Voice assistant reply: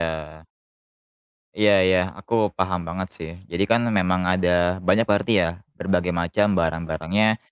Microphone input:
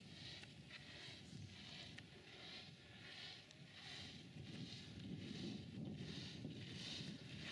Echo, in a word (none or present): none